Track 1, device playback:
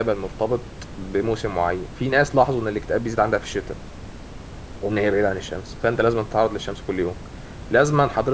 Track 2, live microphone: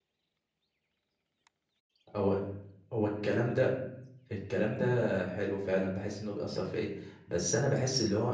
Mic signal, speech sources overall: user only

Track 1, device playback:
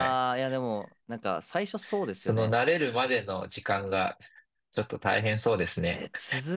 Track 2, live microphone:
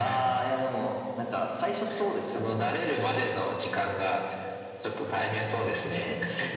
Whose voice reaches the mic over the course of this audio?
echo only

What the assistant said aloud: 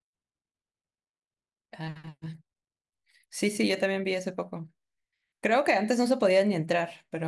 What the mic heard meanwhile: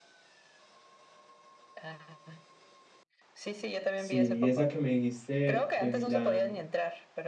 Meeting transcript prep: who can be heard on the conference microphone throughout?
both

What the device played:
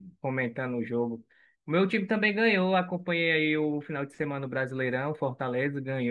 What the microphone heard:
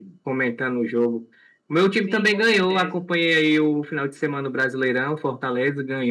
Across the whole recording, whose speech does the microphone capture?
both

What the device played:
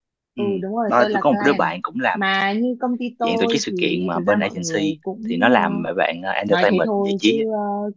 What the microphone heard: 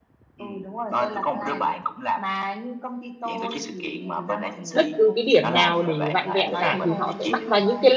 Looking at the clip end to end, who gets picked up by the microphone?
both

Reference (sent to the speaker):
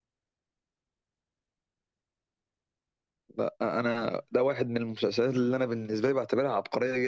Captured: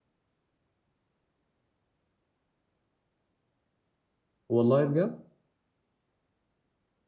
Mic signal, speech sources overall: user only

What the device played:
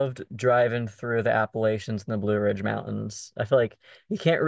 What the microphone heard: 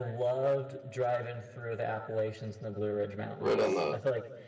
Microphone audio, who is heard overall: both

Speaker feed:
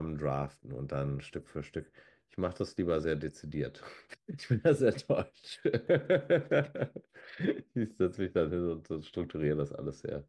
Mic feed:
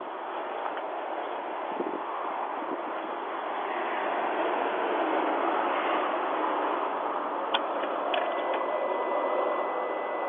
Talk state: neither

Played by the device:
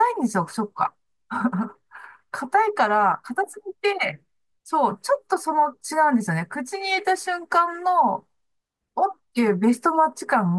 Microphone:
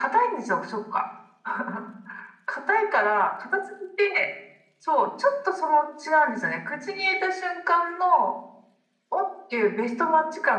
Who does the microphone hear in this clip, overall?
echo only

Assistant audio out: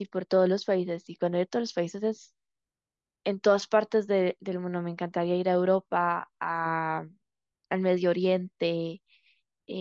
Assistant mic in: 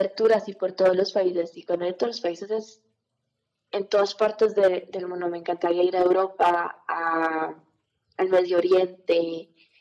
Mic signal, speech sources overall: echo only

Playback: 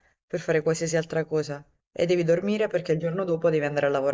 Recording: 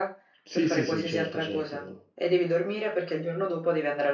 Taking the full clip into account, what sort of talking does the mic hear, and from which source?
both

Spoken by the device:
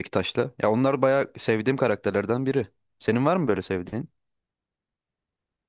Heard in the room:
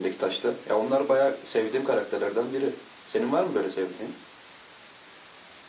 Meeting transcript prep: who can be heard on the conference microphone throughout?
echo only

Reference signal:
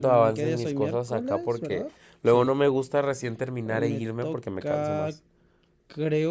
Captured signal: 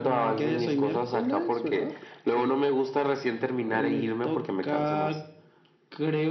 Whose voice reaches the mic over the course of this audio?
echo only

